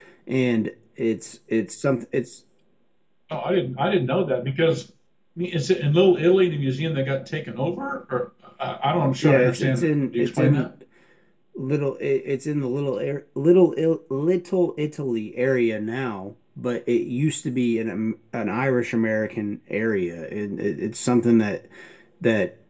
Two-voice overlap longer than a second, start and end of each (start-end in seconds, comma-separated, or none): 9.2-10.7